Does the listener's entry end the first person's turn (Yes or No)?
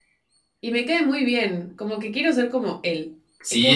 Yes